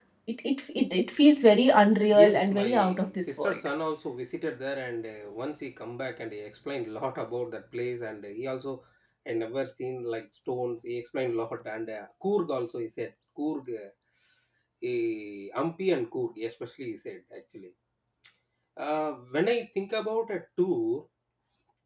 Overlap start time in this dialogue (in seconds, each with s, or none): 2.1 s